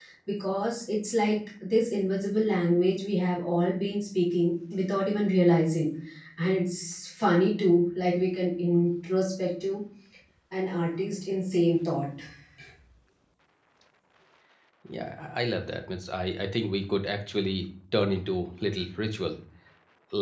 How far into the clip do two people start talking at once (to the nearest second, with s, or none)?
none